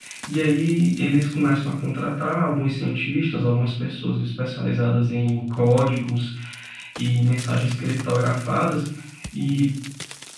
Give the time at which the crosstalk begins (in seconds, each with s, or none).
none